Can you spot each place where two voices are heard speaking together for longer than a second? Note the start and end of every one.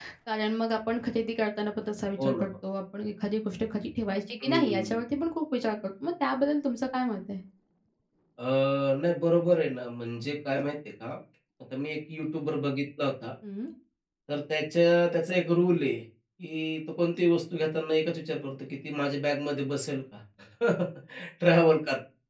none

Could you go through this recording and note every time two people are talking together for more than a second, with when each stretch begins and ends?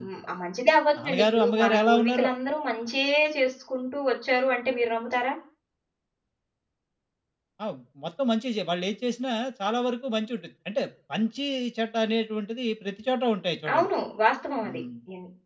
1.0-2.2

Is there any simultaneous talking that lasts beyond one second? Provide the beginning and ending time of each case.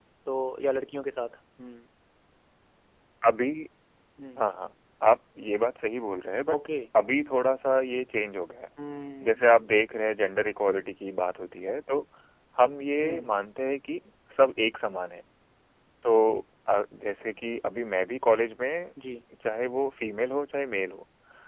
none

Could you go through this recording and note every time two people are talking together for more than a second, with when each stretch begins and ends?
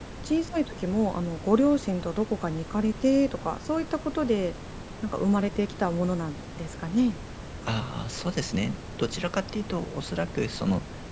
none

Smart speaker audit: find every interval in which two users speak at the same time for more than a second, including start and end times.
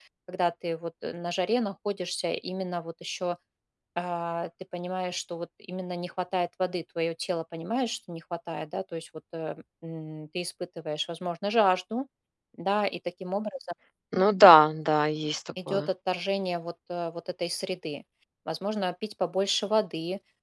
none

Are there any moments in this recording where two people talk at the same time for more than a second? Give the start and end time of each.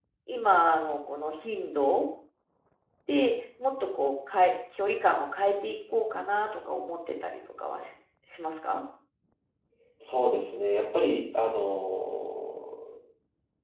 none

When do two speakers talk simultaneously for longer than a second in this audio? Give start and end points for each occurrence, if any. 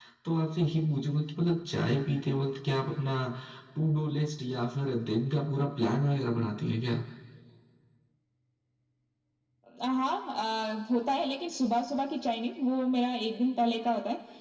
none

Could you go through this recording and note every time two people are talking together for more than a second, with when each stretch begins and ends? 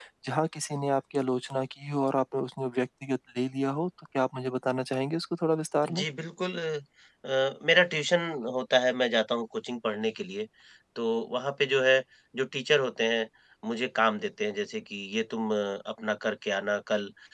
none

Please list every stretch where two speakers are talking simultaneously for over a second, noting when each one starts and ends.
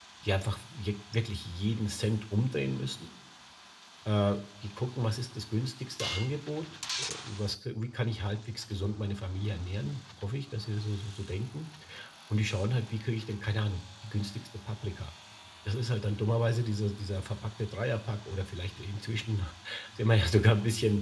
none

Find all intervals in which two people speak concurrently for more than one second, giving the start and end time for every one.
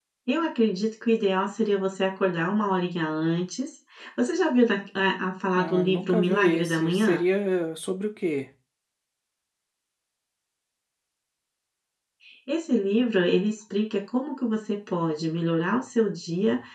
5.6-7.2

